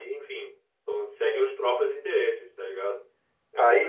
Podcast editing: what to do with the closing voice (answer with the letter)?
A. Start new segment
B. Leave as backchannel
A